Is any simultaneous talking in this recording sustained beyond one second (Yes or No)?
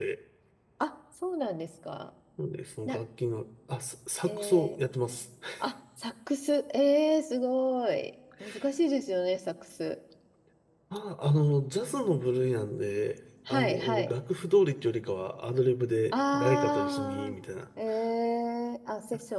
Yes